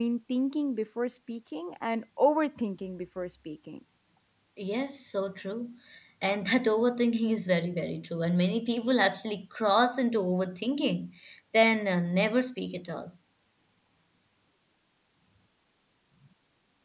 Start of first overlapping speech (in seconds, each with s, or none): none